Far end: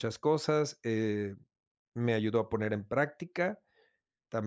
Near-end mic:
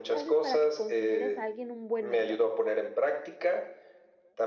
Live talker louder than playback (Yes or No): No